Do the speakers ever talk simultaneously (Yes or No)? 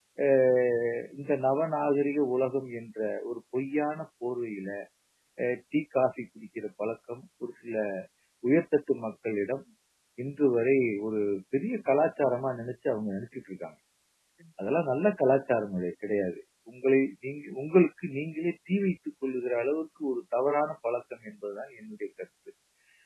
No